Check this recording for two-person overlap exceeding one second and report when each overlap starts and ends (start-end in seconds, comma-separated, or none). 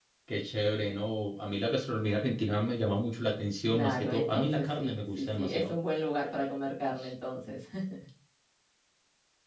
3.7-5.7